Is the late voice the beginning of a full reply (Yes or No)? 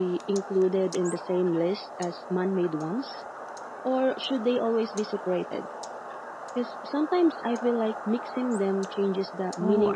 Yes